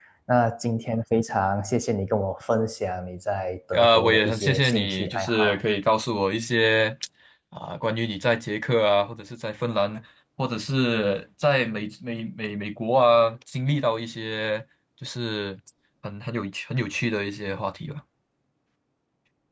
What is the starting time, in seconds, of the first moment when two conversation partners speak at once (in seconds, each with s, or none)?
3.7 s